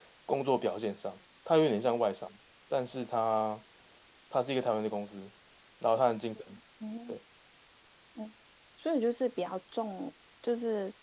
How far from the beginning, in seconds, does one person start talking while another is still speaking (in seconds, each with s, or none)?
none